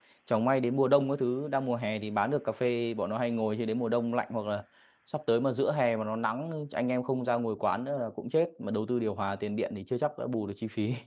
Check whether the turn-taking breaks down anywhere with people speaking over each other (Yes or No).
No